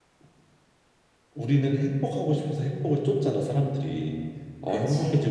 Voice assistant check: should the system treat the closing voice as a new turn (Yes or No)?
No